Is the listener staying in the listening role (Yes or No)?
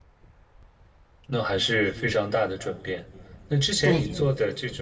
Yes